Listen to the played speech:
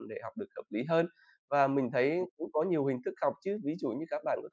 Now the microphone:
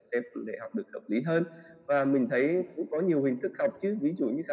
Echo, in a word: present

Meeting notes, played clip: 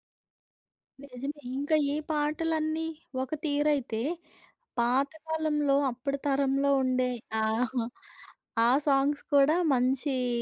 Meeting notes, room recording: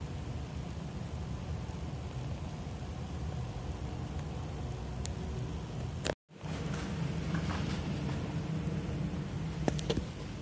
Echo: none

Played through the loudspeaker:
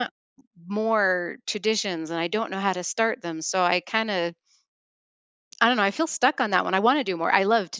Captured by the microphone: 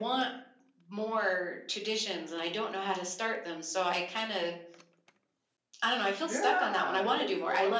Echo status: present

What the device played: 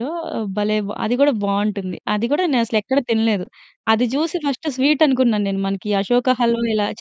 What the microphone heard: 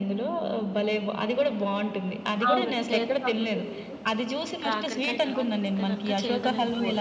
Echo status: present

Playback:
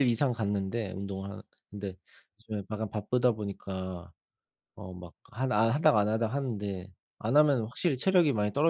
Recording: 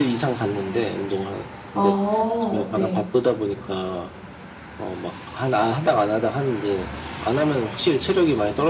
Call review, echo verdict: present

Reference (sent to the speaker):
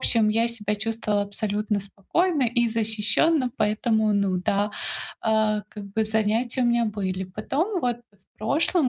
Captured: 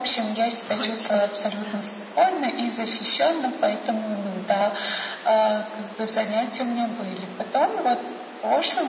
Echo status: present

